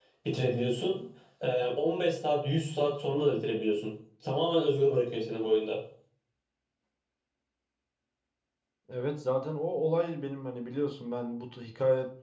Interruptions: none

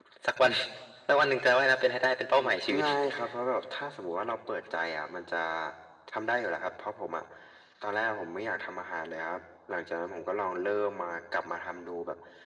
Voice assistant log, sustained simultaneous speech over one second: none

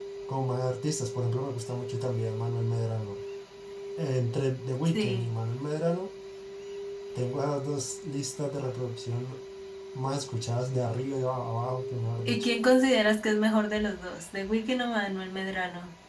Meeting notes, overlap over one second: none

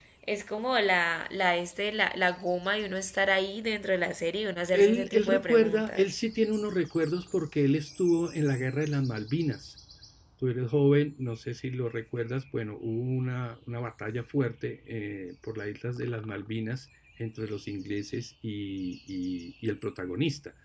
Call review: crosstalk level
present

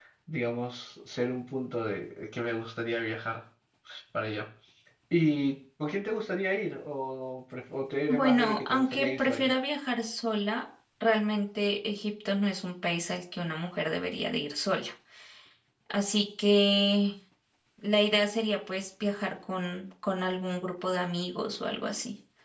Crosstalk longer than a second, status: present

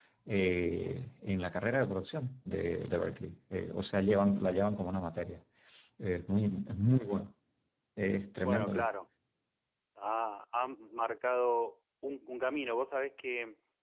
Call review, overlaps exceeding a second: none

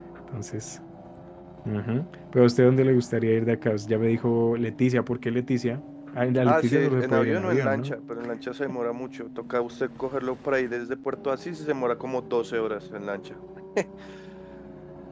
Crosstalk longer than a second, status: present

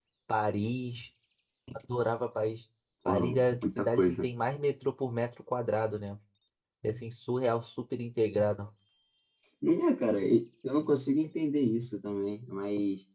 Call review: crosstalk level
present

